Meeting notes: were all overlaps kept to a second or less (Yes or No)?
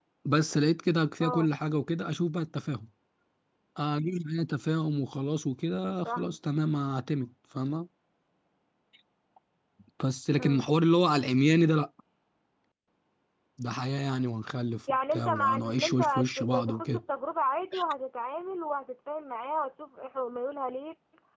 No